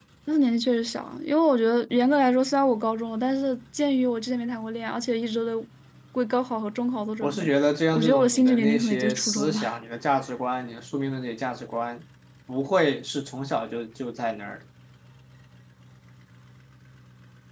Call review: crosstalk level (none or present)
present